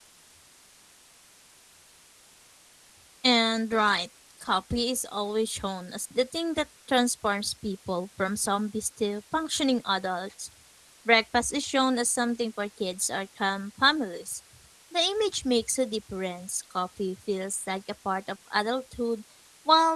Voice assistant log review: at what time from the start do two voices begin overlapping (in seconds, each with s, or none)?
none